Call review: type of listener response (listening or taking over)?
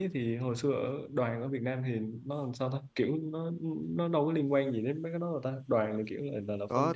taking over